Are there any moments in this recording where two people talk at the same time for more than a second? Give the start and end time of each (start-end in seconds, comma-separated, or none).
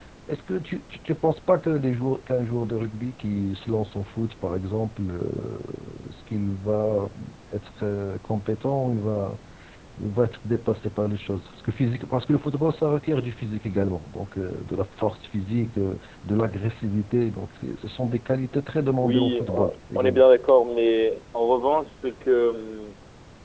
19.0-20.2